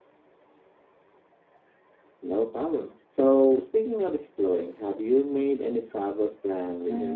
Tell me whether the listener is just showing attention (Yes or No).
No